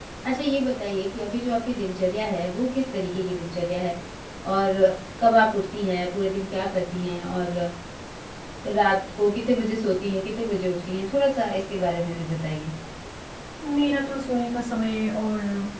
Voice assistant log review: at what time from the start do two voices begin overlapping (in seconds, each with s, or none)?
none